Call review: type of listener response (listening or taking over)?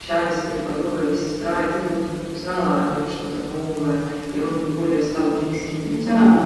taking over